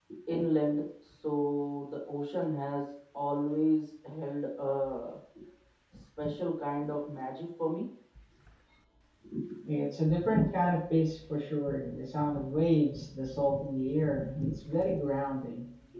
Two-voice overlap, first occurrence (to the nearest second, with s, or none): none